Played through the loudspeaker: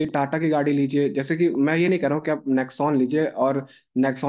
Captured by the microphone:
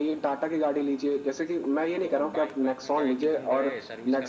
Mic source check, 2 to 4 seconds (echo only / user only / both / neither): both